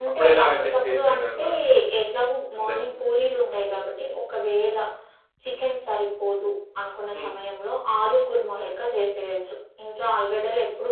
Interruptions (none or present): present